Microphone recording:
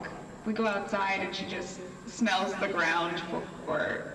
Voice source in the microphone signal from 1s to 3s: echo only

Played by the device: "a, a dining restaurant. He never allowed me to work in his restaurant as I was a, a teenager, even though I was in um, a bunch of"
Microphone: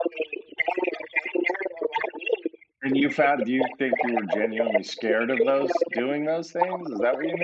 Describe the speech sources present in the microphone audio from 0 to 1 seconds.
echo only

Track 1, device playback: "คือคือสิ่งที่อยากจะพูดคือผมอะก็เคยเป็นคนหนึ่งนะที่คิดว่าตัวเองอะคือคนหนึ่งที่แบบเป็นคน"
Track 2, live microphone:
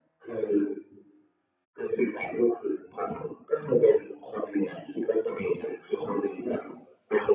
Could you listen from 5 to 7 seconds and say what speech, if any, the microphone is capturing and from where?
echo only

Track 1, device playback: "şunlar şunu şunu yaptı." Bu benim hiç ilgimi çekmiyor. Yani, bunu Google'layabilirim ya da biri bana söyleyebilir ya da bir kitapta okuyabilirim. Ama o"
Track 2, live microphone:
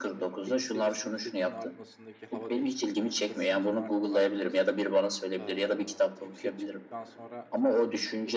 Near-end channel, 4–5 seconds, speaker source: both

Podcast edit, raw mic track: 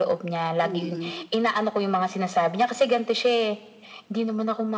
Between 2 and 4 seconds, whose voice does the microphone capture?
echo only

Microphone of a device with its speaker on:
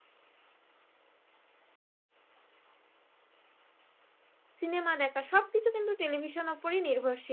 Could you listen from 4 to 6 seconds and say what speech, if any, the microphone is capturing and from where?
user only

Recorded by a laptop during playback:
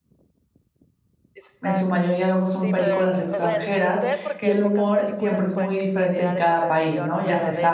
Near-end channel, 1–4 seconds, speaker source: both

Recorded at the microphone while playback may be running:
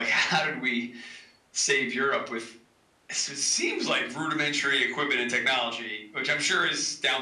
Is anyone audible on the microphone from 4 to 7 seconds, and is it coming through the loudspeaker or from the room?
echo only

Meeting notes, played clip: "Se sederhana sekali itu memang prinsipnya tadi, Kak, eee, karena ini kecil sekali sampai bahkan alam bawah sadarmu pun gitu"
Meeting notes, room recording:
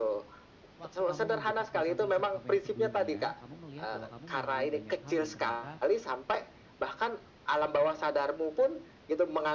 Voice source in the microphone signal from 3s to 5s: both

